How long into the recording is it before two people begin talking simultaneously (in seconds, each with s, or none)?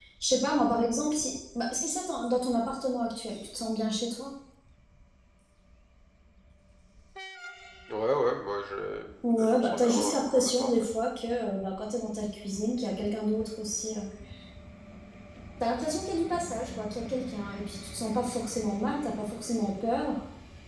9.4 s